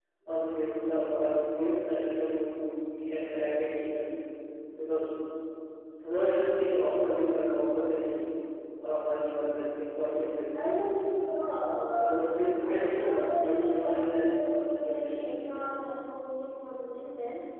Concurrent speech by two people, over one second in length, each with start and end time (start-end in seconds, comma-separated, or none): 12.6-15.2